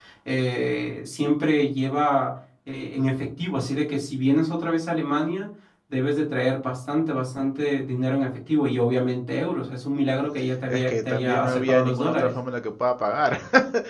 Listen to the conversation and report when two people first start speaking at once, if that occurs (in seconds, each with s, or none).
10.7 s